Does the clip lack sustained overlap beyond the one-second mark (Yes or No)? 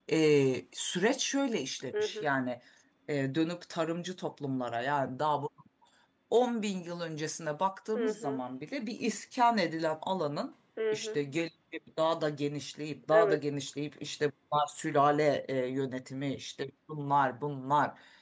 Yes